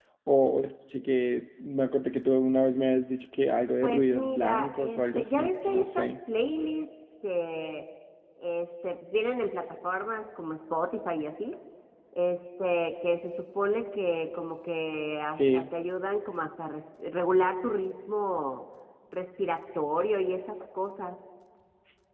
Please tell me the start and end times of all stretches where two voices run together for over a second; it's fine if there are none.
3.8-6.1

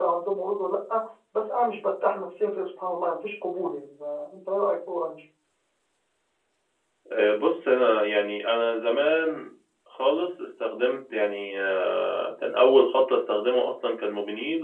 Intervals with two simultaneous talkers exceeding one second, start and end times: none

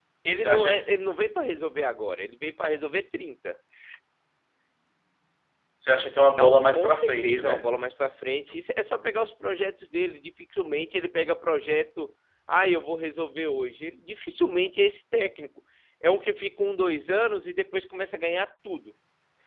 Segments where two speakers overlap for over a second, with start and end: 6.4-7.7

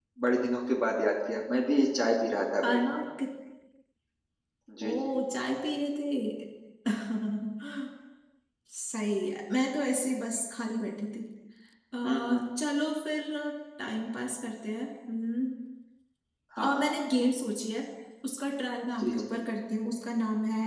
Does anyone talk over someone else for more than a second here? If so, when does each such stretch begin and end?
none

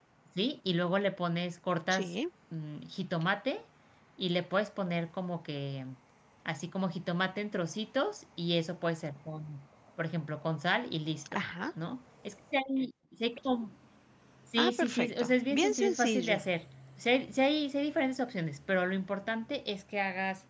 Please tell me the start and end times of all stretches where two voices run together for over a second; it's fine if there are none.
14.6-16.4

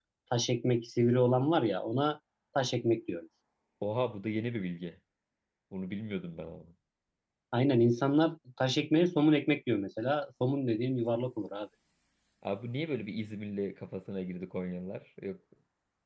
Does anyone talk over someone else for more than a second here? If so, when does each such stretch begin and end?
none

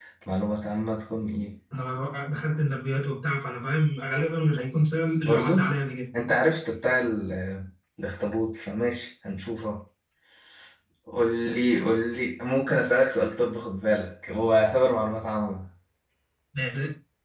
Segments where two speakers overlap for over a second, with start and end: none

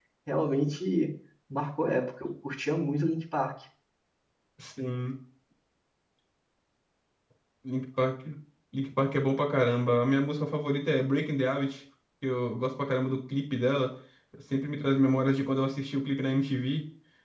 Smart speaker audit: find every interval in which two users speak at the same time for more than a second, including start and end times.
none

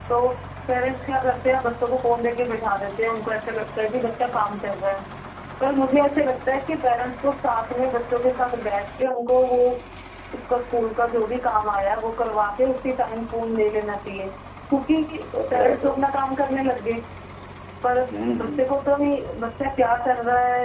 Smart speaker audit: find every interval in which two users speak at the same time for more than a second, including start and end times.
none

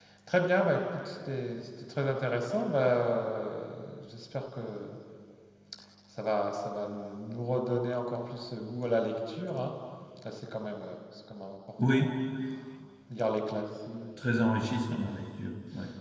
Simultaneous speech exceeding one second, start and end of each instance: none

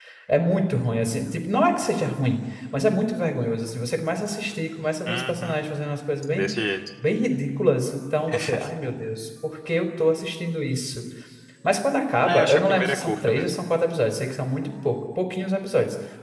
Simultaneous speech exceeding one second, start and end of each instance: 12.3-13.6

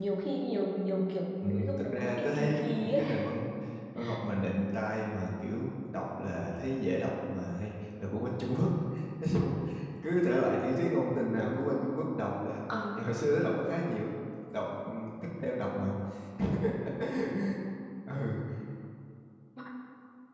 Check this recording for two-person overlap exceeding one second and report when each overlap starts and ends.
1.4-3.0

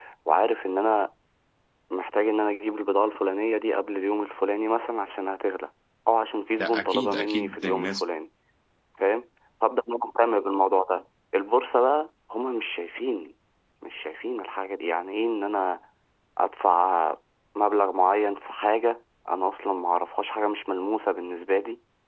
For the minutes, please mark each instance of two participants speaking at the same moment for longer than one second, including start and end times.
6.6-8.0

